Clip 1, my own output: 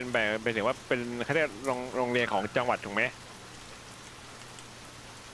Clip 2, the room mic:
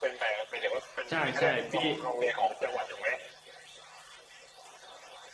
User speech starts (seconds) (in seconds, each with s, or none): 1.1 s